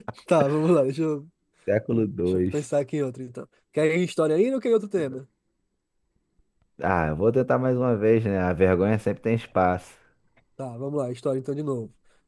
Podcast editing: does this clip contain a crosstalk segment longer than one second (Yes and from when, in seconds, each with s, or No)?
No